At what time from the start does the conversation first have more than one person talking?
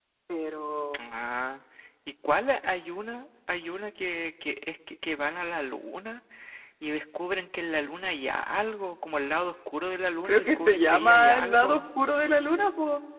10.2 s

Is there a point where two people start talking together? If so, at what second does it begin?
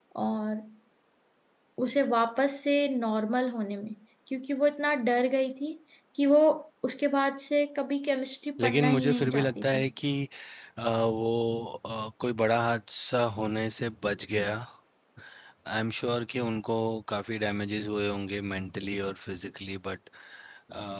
8.6 s

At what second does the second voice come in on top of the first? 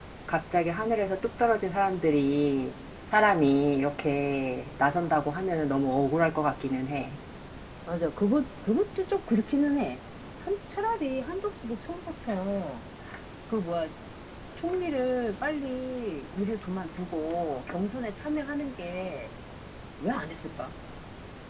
none

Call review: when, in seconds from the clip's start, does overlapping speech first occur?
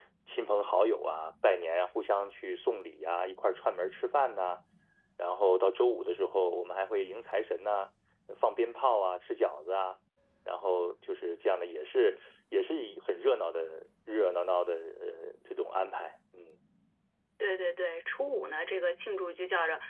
none

